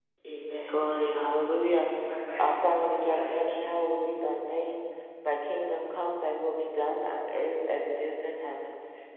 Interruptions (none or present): present